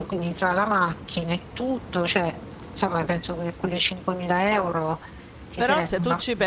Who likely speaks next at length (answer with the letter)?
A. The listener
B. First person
A